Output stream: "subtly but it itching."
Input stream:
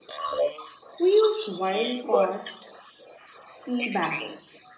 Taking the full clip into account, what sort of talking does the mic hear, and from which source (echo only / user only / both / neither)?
both